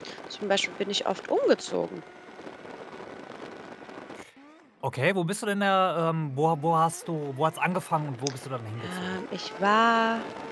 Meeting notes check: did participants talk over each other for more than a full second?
No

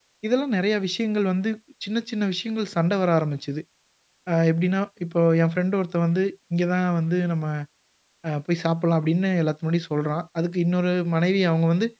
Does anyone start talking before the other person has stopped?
No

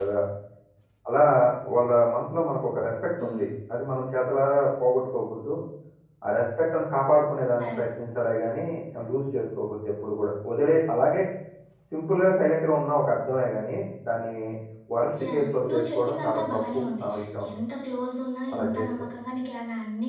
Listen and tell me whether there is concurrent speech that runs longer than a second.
Yes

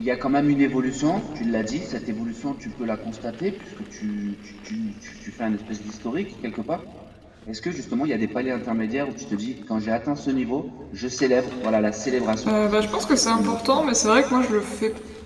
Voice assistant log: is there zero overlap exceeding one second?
No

